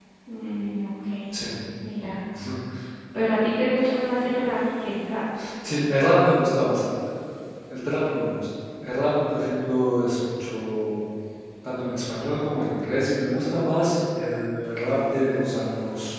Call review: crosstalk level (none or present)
none